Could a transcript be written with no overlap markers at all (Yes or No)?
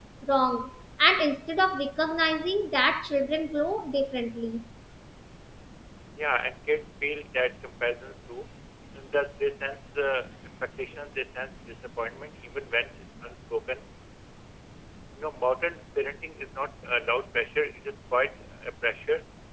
Yes